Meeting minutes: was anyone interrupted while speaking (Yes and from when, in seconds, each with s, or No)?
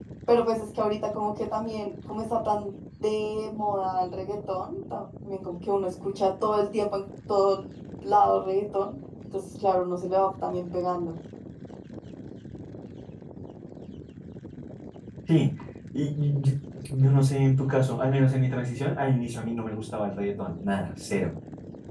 No